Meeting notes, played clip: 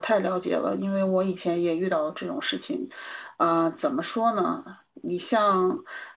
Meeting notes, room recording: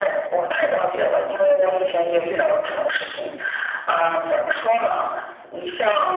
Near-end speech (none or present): none